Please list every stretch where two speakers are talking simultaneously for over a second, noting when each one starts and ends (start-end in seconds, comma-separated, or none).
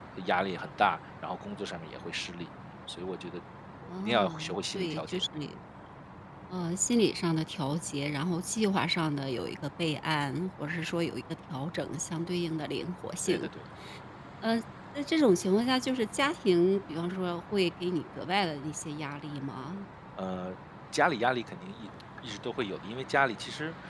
4.0-5.3